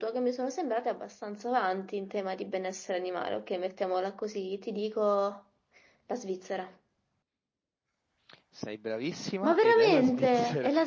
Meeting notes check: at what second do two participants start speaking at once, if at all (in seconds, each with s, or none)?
9.4 s